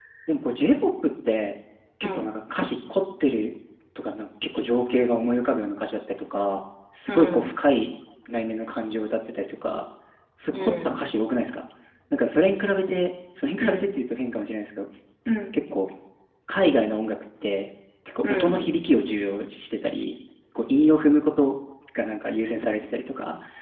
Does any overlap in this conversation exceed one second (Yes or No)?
No